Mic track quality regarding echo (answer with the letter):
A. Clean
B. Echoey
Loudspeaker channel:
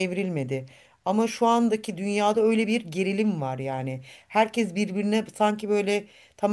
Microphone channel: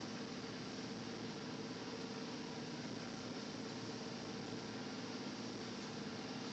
A